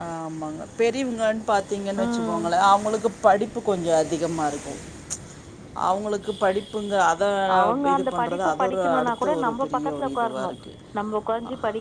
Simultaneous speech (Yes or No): Yes